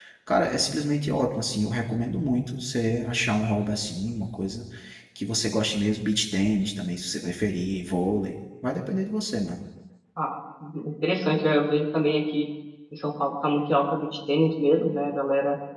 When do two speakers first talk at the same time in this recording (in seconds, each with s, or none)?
none